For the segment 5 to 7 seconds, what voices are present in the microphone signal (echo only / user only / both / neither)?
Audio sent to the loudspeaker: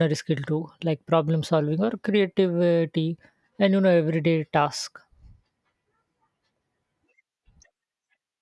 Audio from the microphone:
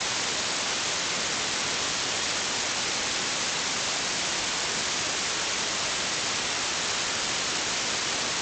neither